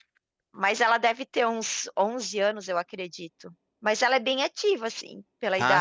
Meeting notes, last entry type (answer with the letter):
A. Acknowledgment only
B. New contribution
B